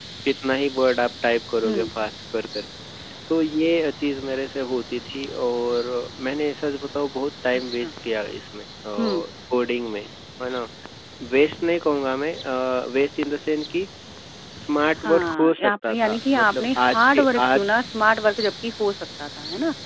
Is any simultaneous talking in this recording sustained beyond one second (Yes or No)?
Yes